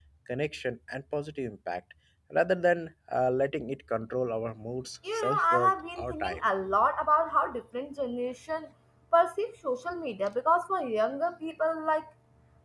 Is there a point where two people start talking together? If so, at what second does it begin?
5.0 s

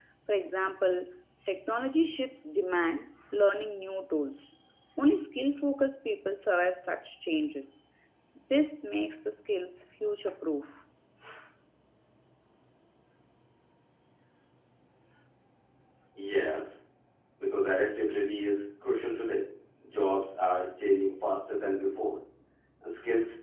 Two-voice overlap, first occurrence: none

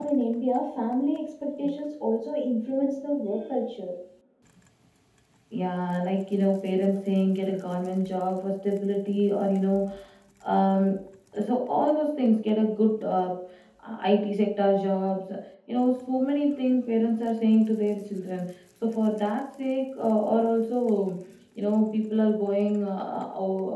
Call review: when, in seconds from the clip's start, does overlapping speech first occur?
none

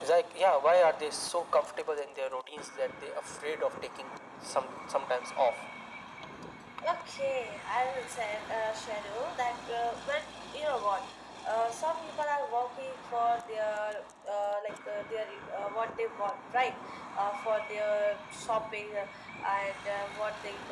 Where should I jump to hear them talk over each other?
none

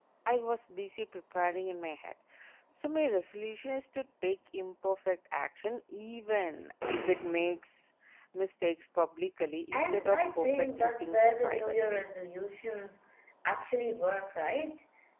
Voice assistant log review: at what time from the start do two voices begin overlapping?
9.7 s

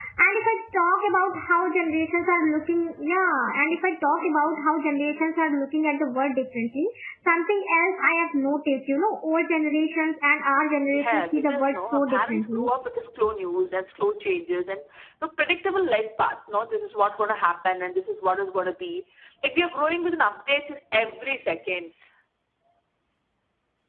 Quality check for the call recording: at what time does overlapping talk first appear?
10.9 s

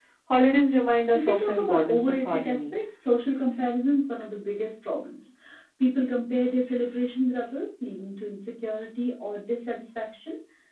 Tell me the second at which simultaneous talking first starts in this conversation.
1.1 s

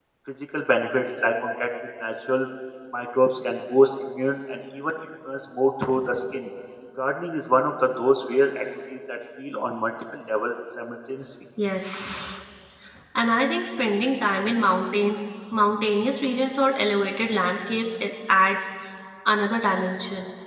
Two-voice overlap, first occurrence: none

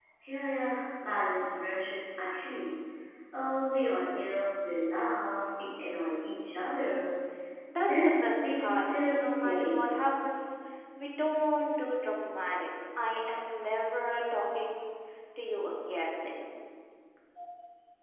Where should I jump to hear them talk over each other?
7.9 s

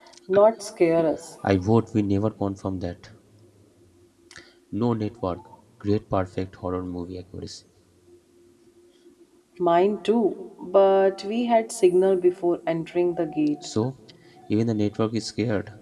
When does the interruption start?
none

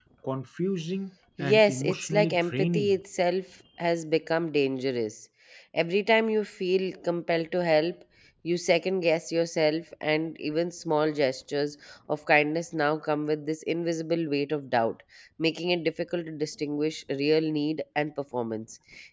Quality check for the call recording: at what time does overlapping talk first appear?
1.4 s

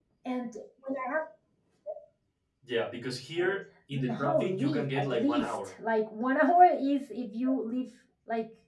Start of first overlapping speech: 3.9 s

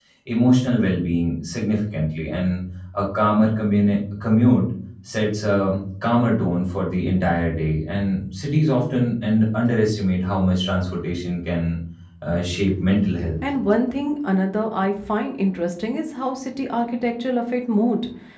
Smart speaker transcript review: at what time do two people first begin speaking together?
none

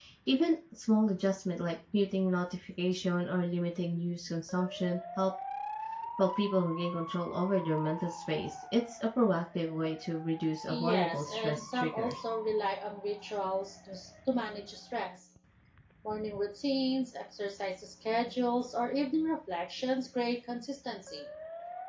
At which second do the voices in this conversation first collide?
10.7 s

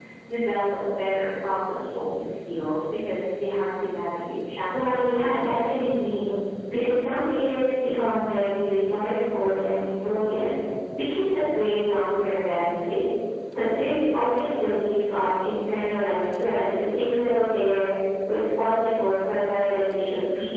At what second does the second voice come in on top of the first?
4.7 s

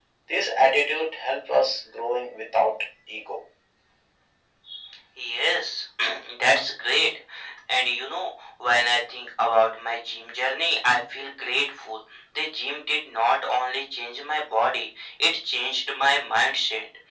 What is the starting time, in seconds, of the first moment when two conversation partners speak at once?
none

